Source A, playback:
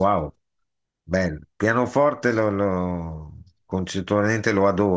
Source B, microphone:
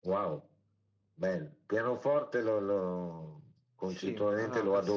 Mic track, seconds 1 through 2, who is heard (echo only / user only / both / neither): echo only